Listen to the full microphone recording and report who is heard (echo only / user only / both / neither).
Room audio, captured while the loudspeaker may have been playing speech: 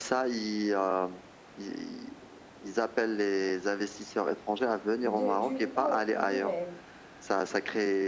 both